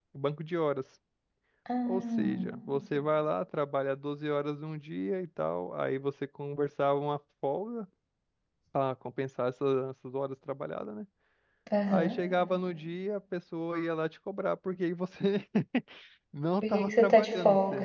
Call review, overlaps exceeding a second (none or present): present